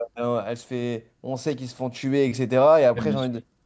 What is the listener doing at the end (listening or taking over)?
listening